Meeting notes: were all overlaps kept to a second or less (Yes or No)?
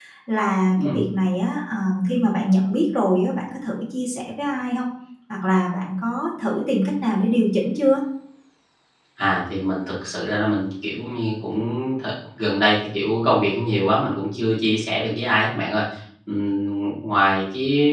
Yes